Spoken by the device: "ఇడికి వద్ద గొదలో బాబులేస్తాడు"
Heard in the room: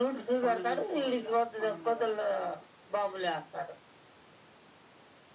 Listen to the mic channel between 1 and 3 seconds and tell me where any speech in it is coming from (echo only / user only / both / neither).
both